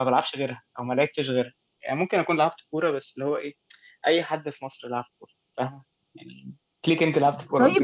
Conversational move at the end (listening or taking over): taking over